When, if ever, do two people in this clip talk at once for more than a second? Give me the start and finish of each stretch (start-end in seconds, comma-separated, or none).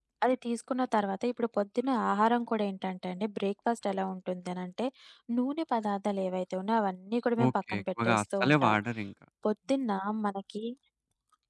7.5-8.8